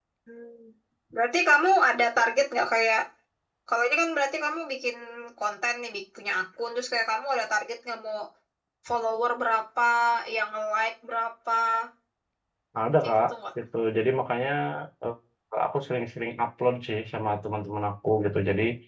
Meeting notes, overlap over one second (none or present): none